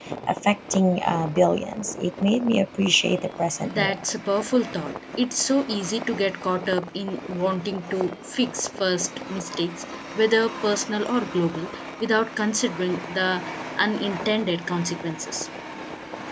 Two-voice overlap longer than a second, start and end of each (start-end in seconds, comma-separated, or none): none